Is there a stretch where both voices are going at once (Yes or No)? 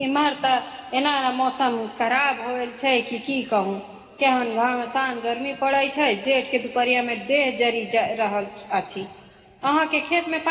No